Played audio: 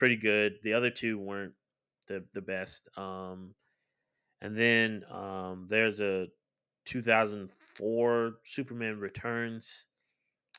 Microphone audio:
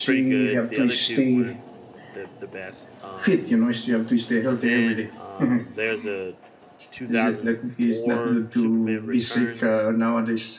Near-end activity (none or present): present